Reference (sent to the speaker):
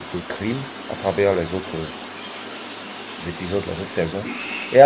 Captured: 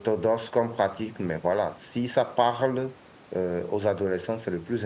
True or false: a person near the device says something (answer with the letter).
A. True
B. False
A